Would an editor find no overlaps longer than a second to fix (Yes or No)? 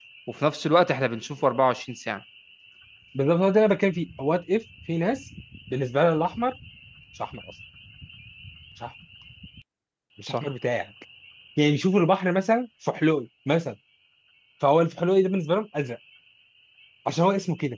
Yes